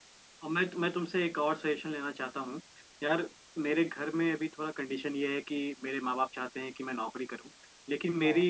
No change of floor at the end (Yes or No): Yes